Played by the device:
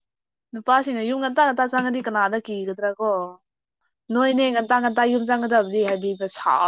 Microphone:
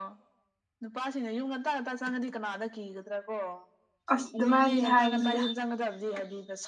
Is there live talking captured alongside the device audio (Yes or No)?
Yes